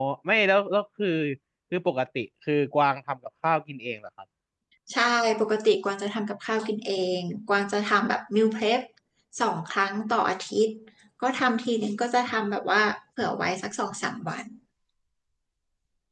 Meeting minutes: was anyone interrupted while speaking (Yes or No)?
No